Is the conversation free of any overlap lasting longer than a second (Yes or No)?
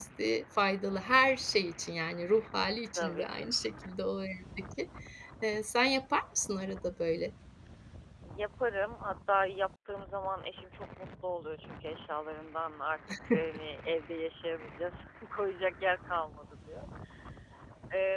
Yes